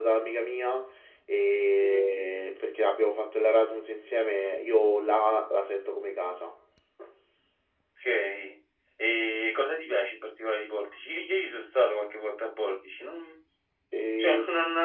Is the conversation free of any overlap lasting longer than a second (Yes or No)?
Yes